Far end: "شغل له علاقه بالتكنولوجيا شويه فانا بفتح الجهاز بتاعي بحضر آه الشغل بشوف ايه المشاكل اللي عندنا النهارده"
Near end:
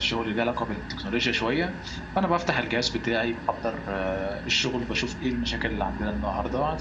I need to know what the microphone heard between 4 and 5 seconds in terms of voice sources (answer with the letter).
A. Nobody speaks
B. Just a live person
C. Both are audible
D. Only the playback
D